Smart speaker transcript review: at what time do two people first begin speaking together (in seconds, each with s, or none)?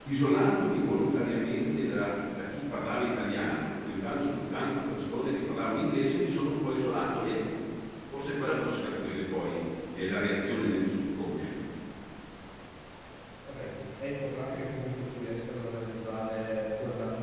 none